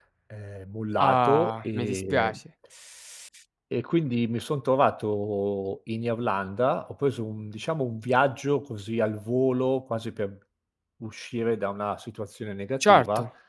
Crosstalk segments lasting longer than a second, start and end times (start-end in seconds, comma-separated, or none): 1.0-2.3